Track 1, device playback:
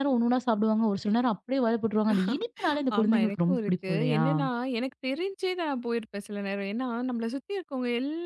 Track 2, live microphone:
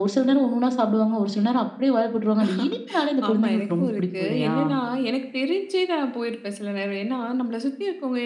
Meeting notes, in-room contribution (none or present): none